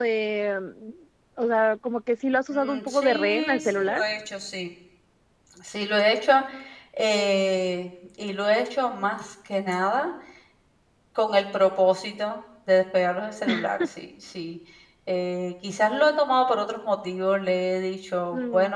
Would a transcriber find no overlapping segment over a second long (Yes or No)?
No